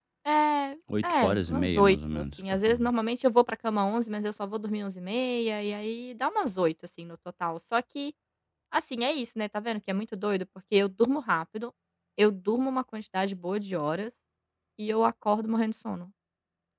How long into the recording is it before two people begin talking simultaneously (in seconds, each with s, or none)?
1.0 s